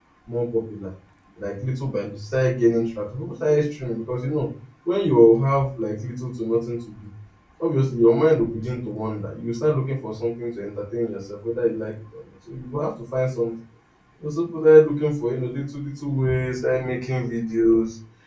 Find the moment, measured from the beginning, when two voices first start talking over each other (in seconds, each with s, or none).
none